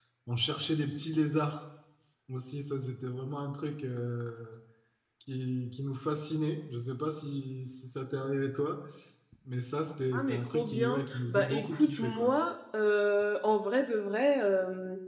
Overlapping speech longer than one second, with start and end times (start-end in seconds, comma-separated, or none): 10.2-12.3